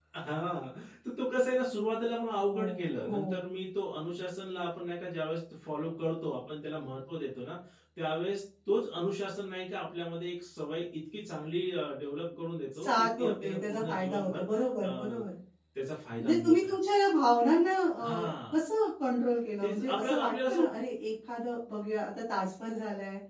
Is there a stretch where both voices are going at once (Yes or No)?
Yes